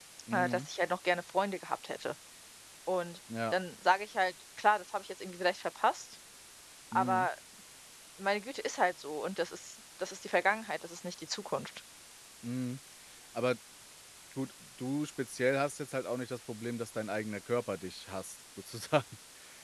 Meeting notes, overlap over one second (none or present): none